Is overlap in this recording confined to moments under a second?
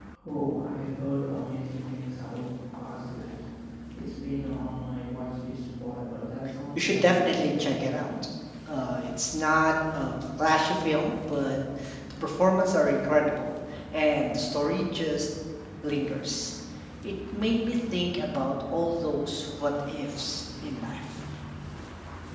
No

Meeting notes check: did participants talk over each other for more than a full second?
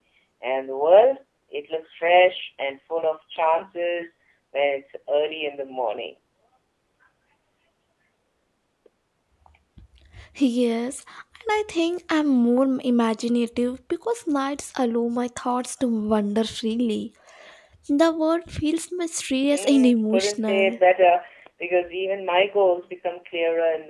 Yes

